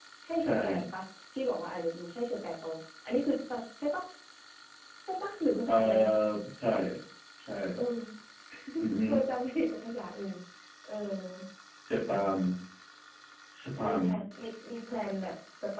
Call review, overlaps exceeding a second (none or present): none